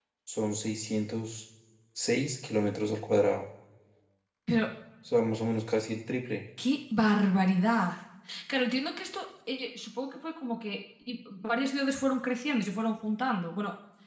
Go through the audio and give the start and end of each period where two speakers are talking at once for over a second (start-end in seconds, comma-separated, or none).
none